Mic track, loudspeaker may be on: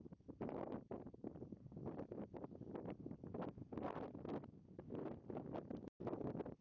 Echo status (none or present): none